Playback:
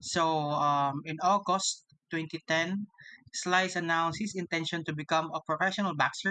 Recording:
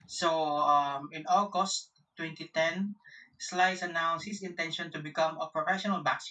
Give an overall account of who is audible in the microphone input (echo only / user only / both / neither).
echo only